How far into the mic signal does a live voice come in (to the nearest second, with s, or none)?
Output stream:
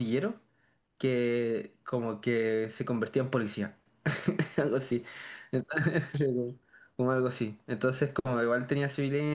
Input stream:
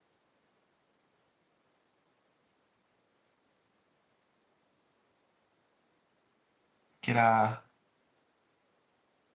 7 s